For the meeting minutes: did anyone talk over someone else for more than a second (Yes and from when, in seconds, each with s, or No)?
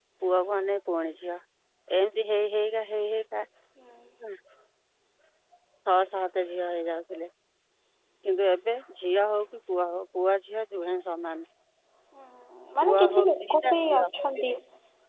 Yes, from 12.8 s